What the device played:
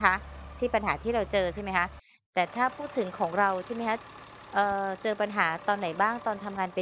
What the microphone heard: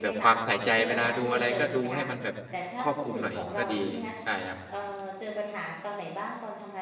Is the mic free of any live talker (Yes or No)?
No